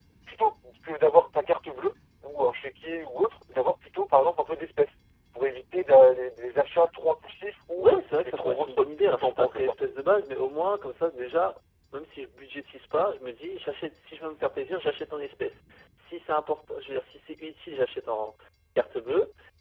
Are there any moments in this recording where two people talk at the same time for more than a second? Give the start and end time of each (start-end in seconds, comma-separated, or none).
7.8-9.8